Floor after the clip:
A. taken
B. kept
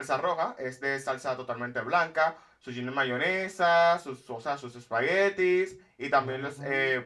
B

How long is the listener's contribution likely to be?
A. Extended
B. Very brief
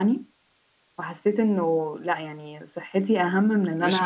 A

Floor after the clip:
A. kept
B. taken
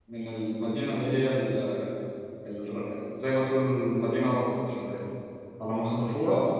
A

